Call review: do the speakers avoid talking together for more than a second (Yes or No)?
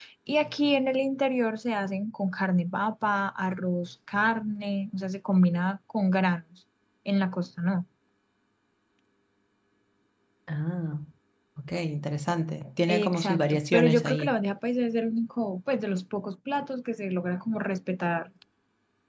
No